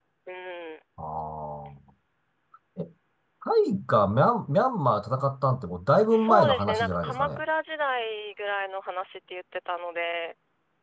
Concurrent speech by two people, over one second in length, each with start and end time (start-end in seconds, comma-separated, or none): 6.1-7.4